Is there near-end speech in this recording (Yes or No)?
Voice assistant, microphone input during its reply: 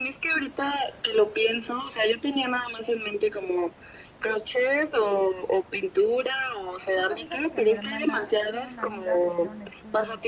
Yes